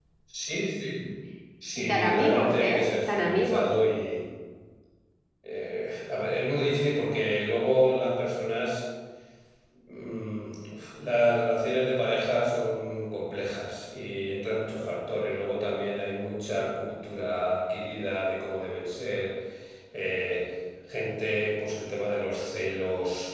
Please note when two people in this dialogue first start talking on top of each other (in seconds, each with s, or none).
1.8 s